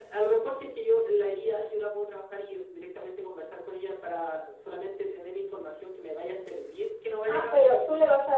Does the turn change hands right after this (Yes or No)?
Yes